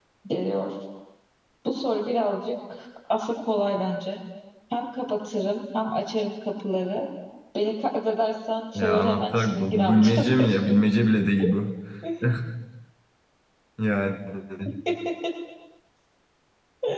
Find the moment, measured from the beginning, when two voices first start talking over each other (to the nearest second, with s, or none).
9 s